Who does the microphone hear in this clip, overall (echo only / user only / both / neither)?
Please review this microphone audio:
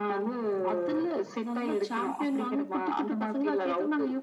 echo only